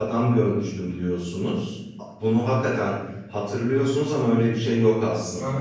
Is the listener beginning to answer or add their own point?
Yes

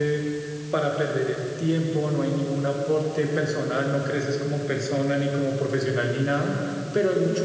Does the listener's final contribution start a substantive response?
No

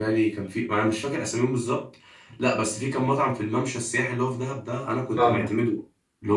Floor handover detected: No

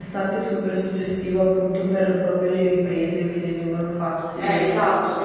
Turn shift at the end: Yes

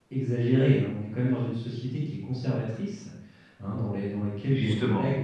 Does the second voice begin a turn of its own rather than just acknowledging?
No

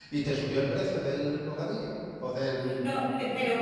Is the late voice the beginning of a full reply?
Yes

